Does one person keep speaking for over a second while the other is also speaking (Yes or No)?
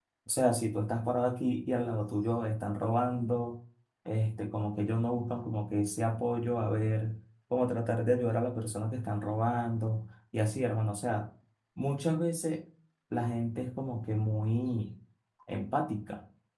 No